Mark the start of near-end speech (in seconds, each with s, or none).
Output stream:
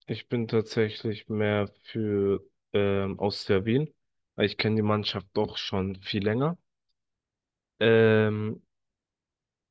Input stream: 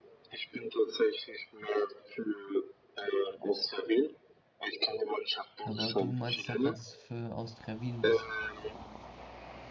5.6 s